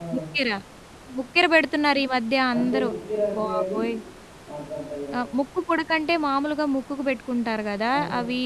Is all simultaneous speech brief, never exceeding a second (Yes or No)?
Yes